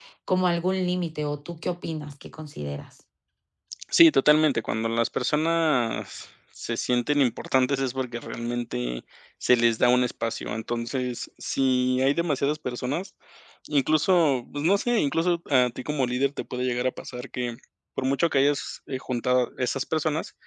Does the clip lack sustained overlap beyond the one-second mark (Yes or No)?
Yes